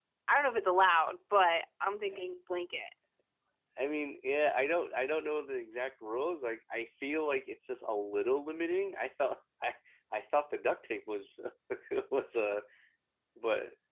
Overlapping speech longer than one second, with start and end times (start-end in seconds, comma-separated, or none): none